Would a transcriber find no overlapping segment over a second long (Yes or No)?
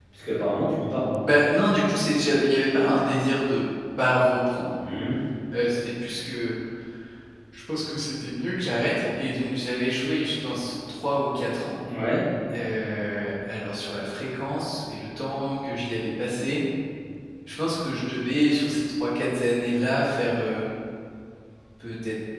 Yes